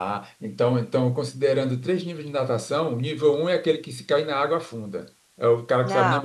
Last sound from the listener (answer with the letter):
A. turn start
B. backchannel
B